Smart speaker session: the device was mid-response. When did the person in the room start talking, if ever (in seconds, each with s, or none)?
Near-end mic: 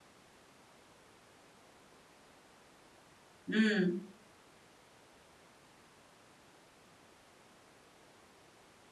3.5 s